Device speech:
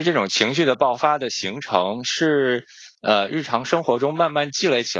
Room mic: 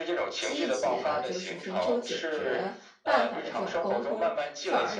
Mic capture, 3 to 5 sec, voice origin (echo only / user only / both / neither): both